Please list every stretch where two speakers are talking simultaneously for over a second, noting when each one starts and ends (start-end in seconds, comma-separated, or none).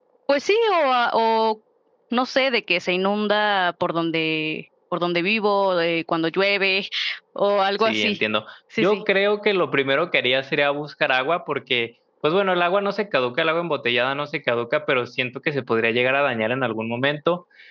none